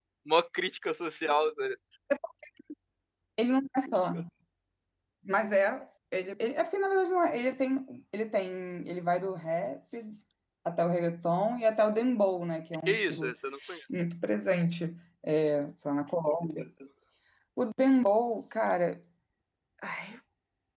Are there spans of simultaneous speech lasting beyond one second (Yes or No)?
No